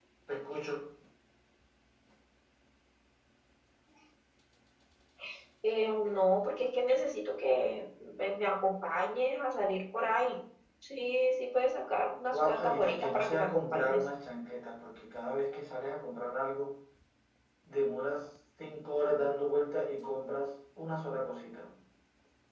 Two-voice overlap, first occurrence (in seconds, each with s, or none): 12.3 s